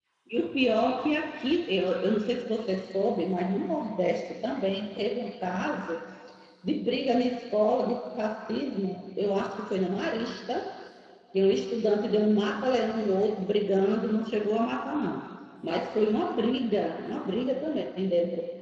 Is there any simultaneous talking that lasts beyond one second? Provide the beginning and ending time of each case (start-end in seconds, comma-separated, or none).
none